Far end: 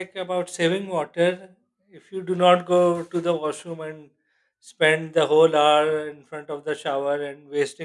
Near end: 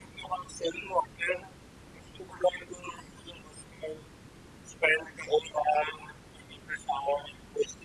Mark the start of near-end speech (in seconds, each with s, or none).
none